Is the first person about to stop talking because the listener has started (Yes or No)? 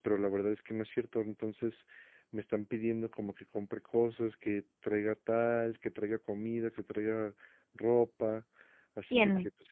No